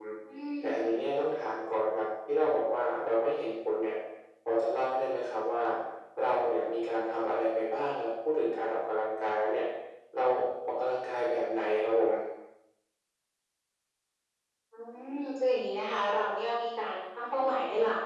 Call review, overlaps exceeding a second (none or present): none